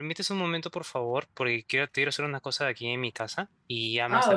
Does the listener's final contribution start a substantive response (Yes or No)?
Yes